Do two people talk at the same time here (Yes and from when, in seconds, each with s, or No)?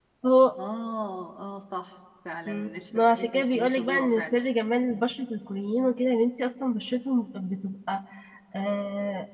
Yes, from 2.5 s